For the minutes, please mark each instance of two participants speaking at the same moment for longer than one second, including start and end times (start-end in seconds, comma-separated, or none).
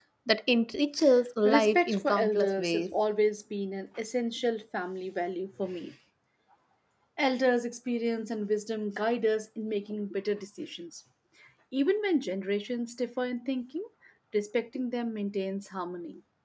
1.4-3.0